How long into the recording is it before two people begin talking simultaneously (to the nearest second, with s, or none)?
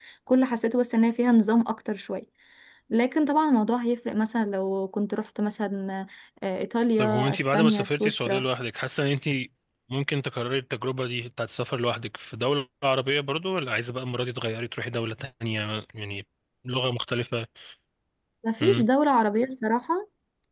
7 s